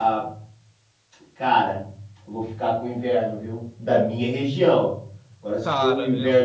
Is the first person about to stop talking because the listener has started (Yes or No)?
No